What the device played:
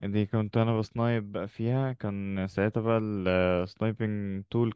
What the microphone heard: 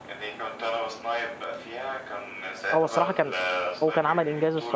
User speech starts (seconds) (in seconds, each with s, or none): 2.7 s